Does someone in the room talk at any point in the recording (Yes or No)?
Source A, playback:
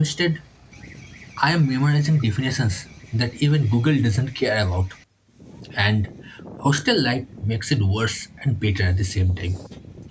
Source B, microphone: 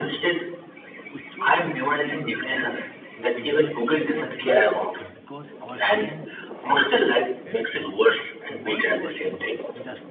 Yes